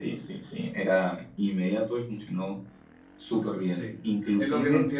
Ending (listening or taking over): taking over